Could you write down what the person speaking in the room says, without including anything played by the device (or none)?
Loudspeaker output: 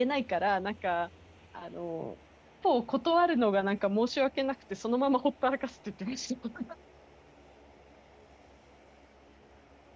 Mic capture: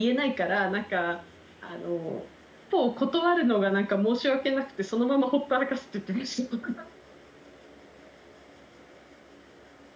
none